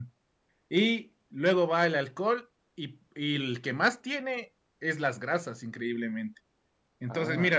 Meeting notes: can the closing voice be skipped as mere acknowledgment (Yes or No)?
Yes